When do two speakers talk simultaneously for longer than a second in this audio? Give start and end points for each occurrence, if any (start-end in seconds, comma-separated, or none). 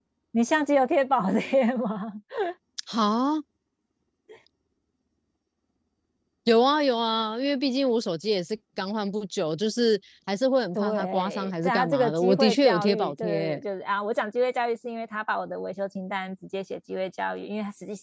10.8-13.6